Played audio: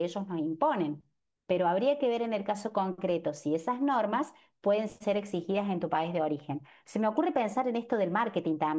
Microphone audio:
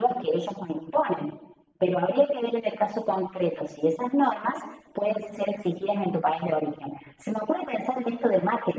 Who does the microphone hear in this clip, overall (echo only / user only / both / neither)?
echo only